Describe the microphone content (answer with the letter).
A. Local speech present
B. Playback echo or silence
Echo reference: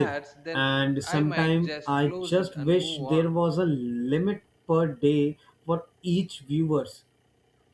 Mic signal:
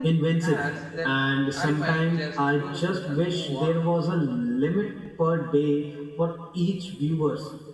B